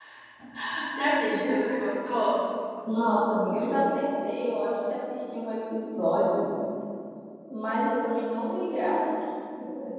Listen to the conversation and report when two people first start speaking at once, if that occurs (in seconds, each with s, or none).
none